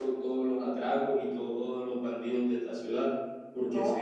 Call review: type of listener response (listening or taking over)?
listening